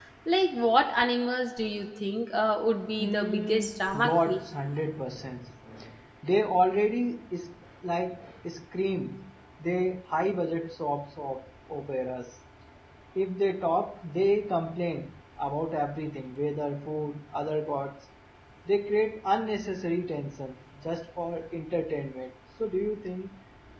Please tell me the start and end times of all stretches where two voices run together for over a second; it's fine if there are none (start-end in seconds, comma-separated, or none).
3.0-4.4